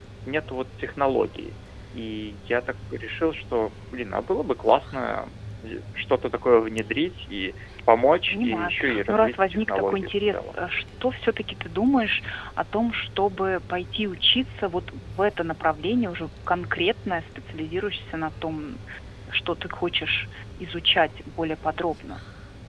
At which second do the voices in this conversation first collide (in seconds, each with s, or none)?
8.3 s